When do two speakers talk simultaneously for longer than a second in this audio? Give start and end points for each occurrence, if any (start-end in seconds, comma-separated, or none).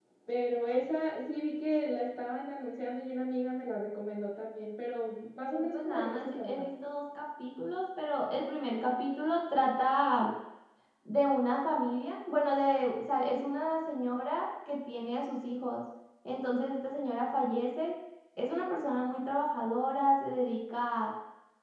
5.4-6.7